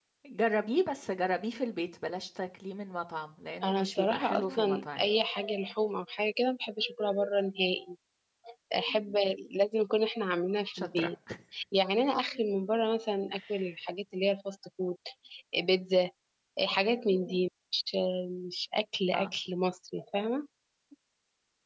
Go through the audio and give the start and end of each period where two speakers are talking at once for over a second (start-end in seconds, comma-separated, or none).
3.6-5.1